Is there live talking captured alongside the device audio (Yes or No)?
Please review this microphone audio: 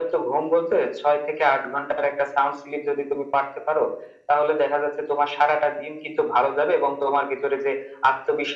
No